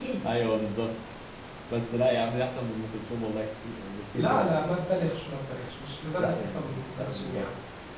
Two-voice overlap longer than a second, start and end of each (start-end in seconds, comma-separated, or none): 6.2-7.5